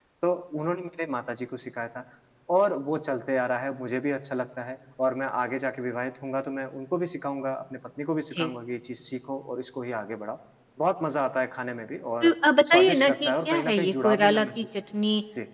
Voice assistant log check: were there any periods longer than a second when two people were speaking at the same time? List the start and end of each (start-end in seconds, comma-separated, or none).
12.7-14.5